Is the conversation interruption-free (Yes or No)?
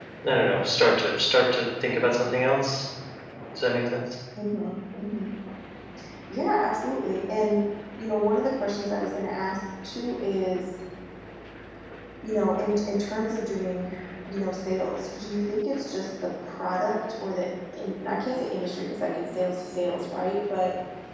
Yes